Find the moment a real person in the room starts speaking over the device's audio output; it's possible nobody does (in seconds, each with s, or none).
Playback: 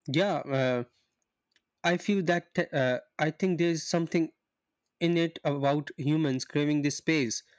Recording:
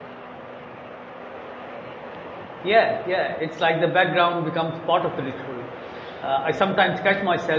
2.6 s